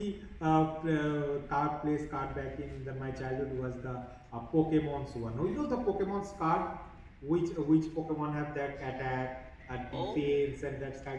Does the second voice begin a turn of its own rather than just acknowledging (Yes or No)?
No